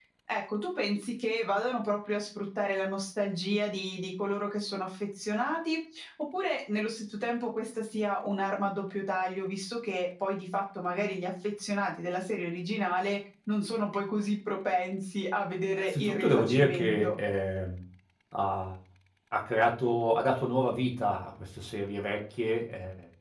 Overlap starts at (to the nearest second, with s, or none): 16 s